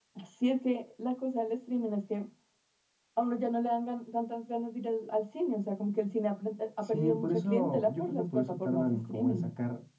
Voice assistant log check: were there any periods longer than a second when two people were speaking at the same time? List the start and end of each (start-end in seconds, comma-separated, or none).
6.8-9.4